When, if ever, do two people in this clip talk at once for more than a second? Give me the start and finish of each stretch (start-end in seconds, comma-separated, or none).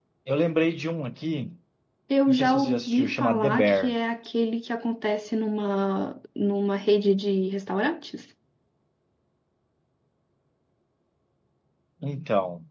2.3-3.9